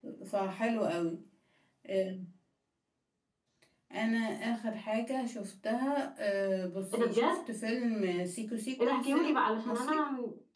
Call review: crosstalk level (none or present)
present